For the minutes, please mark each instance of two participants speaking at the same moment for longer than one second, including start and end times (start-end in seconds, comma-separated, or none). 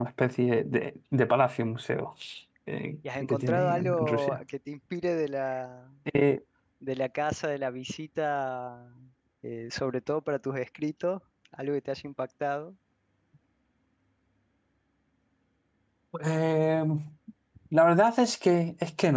3.2-4.4